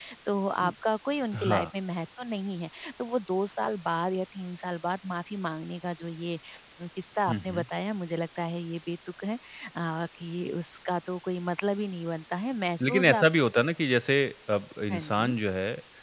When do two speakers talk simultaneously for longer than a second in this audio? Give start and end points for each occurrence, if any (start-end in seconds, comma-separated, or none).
none